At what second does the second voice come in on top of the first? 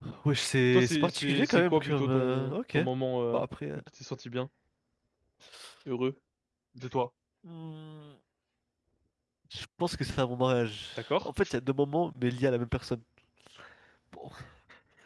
0.7 s

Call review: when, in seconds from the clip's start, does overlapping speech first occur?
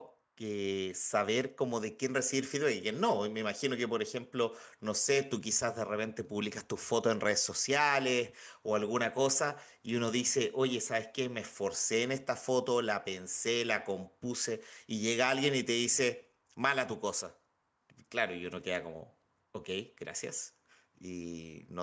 none

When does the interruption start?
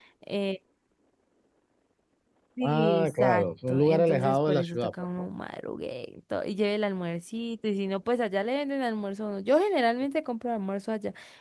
2.6 s

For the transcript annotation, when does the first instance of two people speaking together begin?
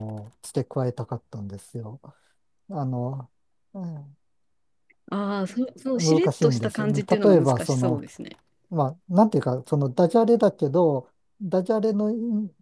6.0 s

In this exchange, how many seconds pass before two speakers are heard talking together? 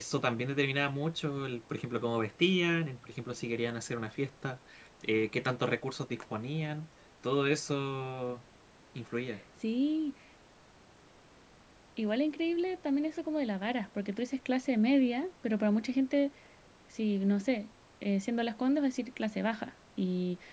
none

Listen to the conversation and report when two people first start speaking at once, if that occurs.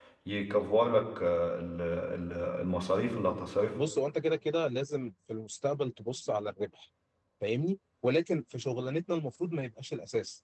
none

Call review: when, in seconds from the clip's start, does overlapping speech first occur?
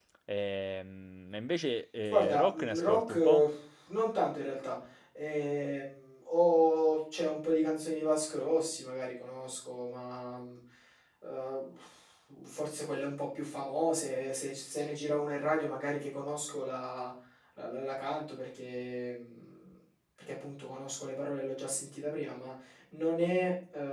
2.0 s

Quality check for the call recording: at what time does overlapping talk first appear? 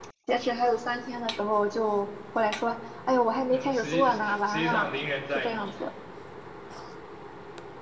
3.5 s

